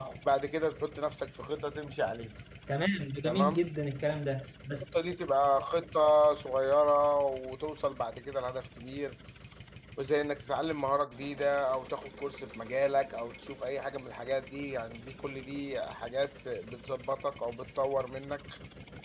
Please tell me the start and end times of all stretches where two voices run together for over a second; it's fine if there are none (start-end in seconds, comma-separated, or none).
none